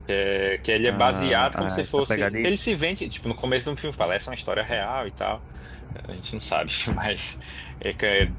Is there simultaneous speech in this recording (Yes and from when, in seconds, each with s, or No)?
Yes, from 0.8 s